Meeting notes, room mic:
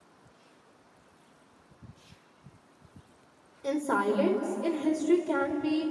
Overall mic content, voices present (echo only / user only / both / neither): user only